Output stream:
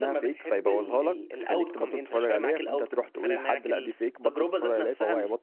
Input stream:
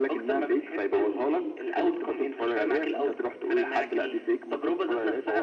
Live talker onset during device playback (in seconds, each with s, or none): none